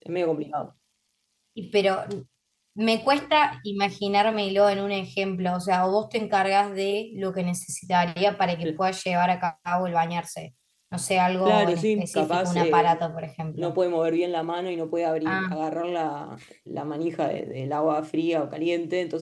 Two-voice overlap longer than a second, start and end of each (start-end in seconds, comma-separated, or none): 11.4-13.0